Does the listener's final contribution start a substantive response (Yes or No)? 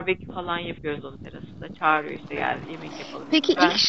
Yes